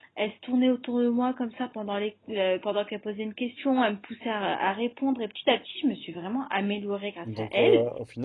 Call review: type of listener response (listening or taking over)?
taking over